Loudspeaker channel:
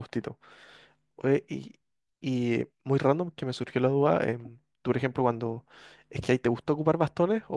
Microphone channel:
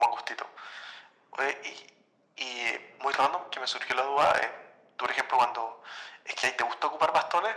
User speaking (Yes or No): No